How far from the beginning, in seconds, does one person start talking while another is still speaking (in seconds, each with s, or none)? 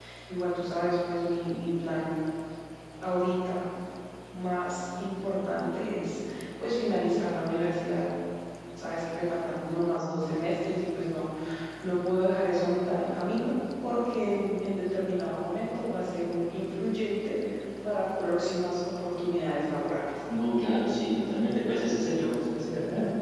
none